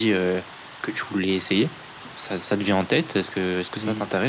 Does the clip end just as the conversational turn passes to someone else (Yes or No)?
Yes